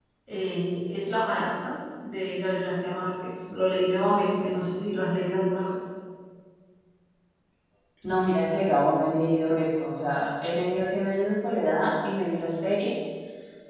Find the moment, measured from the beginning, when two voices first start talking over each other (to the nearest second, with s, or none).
none